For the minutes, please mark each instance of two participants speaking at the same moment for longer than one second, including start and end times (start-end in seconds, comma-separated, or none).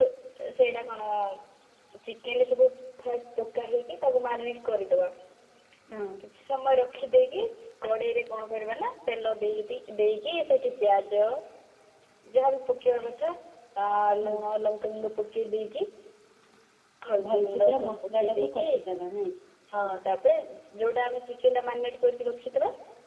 17.2-18.6